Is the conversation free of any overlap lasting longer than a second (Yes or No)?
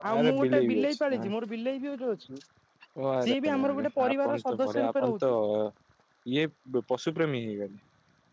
No